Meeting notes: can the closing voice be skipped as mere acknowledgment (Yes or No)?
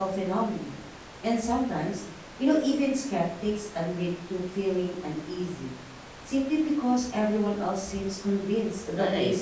No